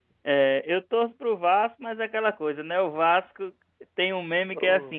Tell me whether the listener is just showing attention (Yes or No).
Yes